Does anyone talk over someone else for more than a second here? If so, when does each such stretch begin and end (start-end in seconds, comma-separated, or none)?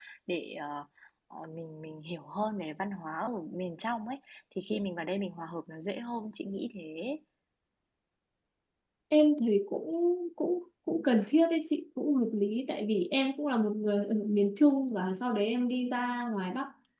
none